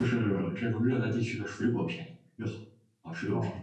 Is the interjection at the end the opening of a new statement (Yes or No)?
Yes